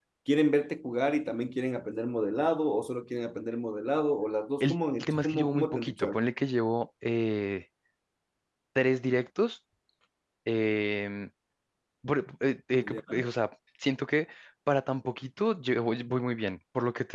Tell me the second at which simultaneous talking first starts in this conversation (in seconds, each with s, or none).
4.6 s